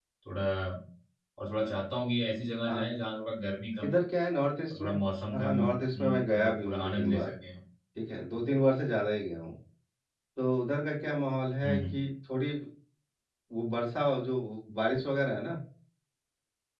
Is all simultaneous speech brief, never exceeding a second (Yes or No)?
No